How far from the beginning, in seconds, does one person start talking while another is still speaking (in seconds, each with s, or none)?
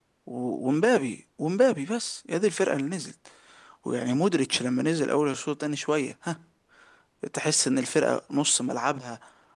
none